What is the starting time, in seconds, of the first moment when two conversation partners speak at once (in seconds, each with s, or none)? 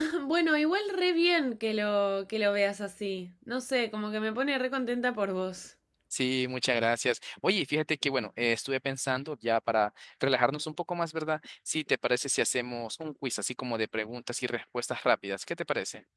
none